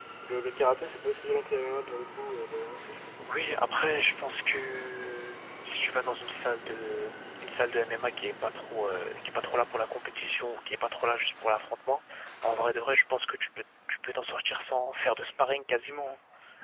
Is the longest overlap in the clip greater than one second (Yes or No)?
No